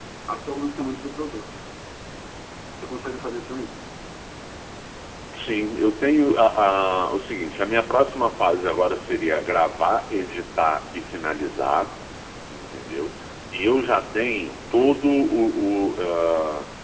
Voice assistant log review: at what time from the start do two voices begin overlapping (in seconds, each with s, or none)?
none